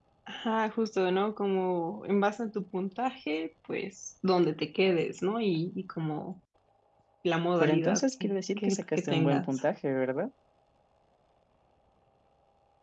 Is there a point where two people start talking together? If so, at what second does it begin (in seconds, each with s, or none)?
7.6 s